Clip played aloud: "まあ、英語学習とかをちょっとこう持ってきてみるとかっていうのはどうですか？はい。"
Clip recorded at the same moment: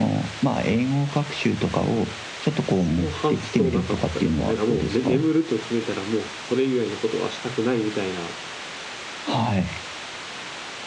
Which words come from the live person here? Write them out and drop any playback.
その発想なかったですね。なんかもう、ね眠ると決めたら、もうそれ以外のことはしたくないみたいな、

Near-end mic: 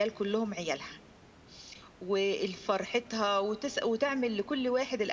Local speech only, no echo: none

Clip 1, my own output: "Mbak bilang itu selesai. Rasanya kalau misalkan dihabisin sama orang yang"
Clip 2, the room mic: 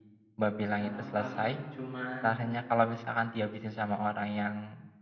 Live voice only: sekarang paling cuman

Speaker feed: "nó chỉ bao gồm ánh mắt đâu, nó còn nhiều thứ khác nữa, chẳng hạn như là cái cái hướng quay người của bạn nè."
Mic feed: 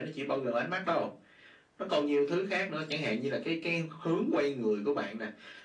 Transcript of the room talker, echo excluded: none

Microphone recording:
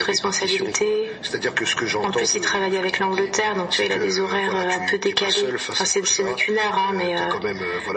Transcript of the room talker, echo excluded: none

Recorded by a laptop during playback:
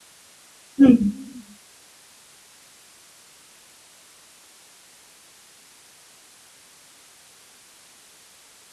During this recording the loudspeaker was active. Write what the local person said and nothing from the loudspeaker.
嗯，

